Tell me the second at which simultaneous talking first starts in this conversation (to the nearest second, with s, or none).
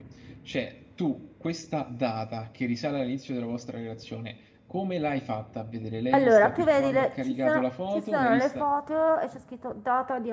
6 s